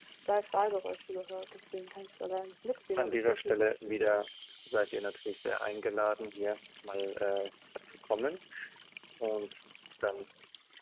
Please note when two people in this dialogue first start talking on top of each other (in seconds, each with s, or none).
3.0 s